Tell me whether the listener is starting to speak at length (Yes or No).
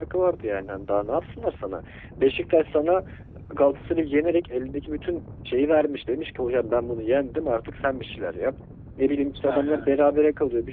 No